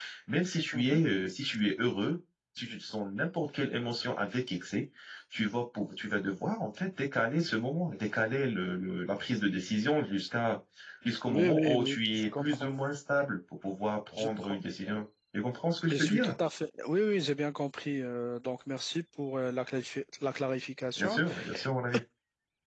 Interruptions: present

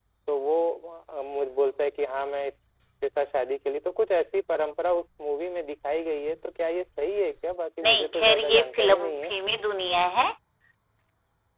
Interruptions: present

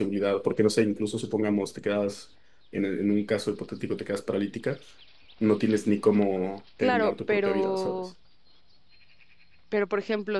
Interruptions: present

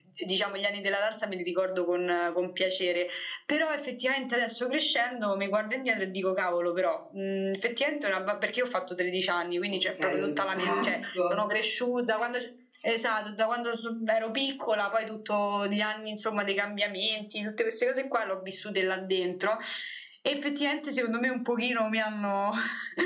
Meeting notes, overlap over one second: present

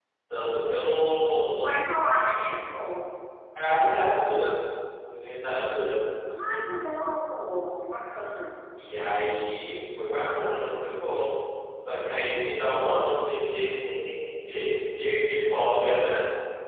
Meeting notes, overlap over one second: none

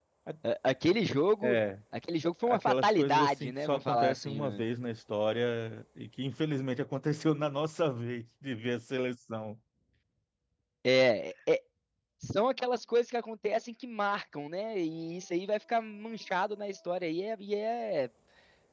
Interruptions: present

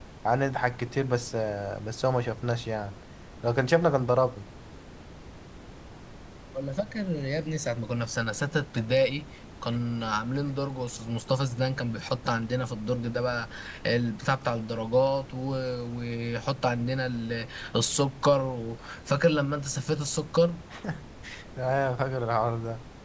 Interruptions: none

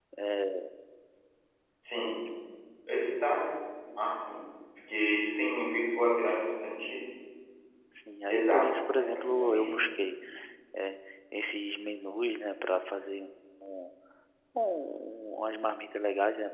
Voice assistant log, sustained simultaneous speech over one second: present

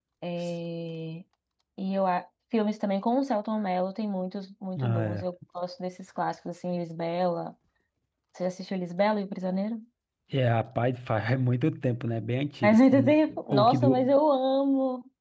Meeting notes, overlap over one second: present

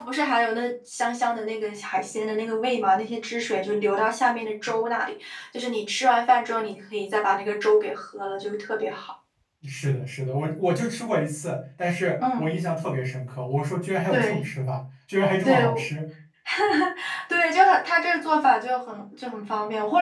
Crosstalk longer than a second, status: none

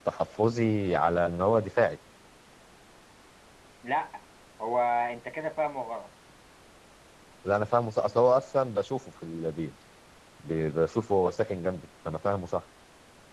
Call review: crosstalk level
none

